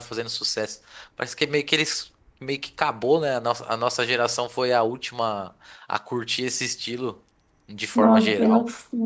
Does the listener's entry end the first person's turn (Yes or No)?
Yes